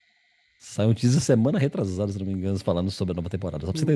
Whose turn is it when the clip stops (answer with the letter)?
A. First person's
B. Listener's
B